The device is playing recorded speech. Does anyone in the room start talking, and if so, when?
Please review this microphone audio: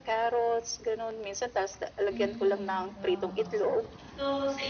2.1 s

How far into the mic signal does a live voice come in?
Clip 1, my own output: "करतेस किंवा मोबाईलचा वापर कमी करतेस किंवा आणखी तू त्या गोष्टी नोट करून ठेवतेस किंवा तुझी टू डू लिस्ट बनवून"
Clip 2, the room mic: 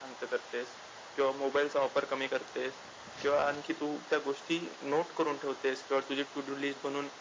none

